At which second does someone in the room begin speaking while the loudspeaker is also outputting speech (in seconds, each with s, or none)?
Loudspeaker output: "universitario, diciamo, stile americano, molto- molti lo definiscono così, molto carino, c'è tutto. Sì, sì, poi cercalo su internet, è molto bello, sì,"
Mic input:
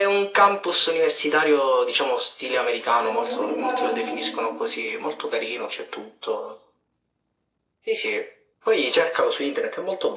3.0 s